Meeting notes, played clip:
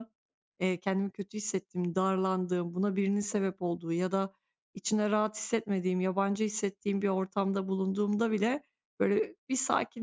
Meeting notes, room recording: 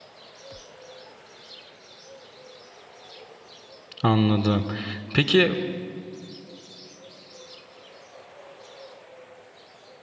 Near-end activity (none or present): present